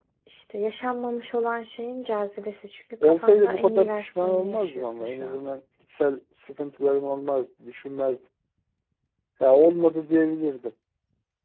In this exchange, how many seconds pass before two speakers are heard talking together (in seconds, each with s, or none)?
3.0 s